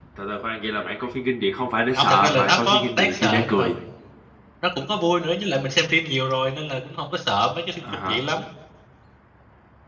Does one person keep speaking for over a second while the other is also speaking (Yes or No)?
Yes